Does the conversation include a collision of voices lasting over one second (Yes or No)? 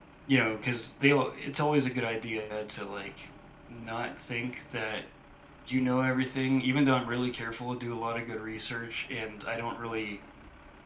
No